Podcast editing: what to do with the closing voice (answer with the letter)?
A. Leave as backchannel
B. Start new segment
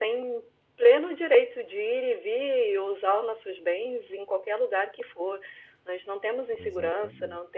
A